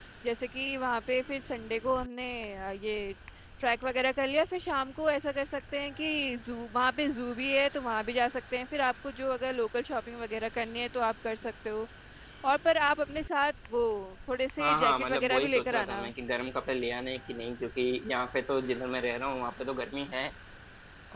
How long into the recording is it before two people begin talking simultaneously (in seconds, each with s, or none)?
14.6 s